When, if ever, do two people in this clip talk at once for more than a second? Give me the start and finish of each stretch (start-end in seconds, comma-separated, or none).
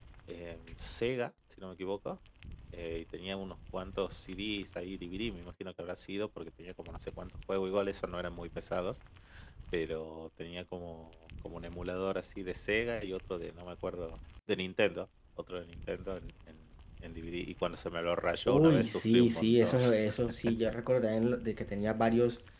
18.5-19.8